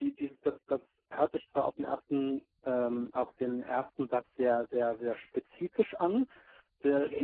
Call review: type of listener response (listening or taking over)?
listening